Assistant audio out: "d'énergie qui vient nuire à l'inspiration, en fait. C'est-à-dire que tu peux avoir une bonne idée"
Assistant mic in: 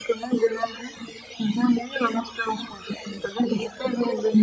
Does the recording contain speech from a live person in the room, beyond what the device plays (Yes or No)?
No